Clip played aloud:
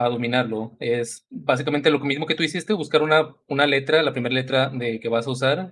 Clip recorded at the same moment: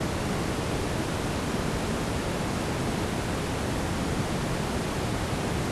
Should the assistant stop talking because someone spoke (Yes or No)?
No